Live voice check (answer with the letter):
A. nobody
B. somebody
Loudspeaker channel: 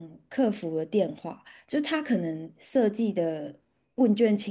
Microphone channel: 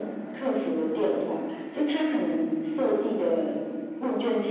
A